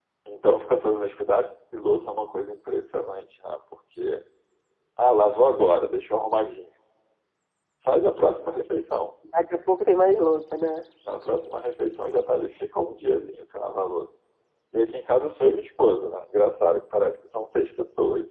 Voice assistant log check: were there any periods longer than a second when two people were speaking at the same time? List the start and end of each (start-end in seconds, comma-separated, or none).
none